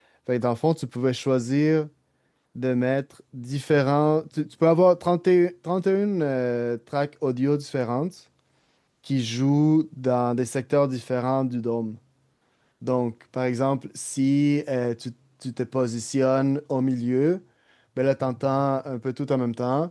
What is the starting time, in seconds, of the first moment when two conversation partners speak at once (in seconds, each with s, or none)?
none